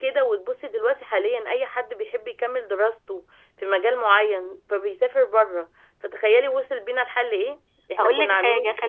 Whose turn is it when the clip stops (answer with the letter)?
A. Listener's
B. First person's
A